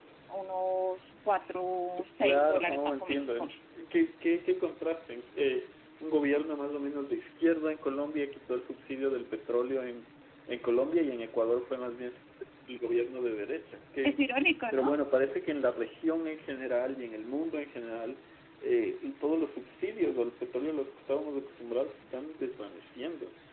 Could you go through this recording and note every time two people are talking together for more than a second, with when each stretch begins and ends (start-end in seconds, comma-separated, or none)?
2.2-3.5